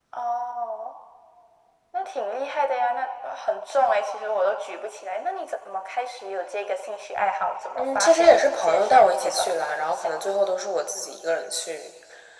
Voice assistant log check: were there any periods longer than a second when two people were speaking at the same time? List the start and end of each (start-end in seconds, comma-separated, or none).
7.8-9.5